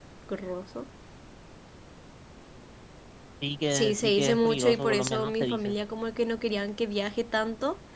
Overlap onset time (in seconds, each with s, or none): 3.7 s